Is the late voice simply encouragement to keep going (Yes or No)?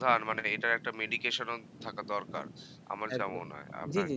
No